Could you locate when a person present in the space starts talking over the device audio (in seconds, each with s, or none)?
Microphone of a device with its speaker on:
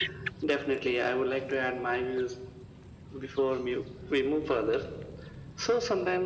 none